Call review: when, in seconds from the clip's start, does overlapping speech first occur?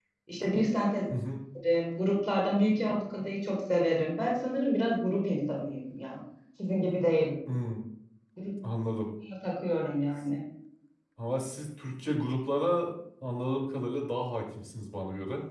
none

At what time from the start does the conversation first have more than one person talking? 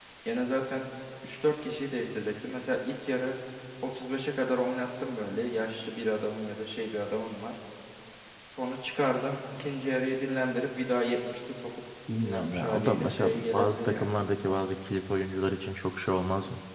12.1 s

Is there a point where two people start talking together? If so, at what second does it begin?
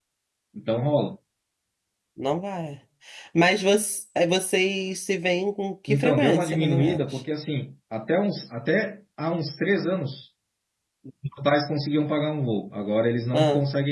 5.9 s

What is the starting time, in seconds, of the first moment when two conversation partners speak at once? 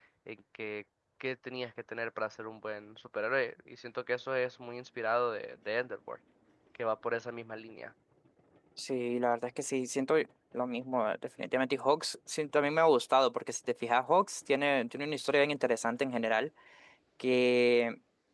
none

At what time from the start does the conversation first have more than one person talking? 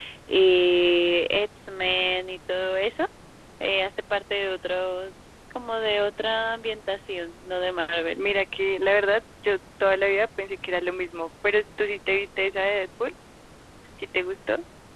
none

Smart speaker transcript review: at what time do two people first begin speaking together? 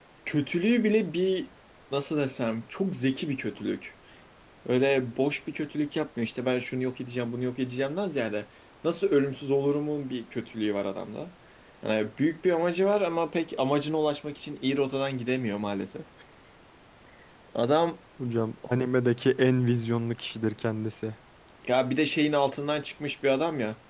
none

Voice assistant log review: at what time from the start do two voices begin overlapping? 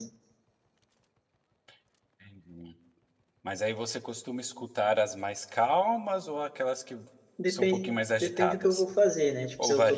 7.5 s

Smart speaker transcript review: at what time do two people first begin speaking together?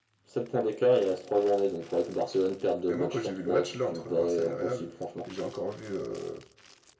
2.9 s

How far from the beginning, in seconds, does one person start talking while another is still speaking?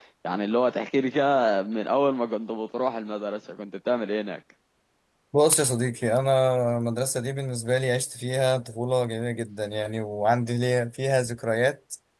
none

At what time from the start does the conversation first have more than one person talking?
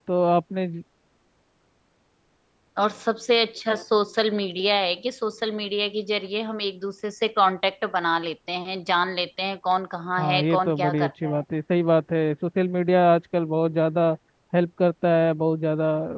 10.2 s

